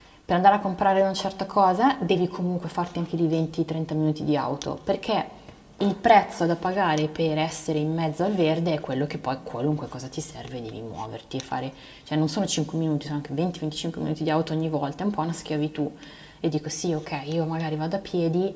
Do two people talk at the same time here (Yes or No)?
No